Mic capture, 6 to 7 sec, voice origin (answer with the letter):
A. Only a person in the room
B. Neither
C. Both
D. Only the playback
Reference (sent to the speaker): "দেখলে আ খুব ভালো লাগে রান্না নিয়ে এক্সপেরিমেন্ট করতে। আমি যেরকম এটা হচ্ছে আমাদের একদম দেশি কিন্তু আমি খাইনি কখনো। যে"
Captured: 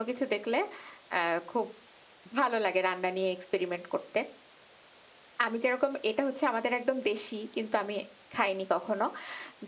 D